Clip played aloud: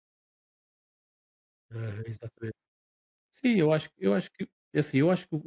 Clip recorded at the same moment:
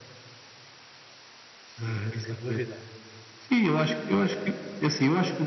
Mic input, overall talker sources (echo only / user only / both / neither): both